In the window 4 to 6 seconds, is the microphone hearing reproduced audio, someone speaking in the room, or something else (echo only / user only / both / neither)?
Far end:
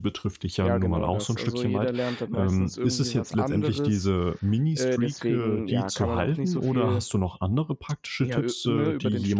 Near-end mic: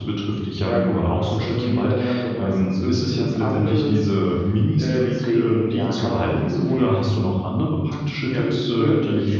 echo only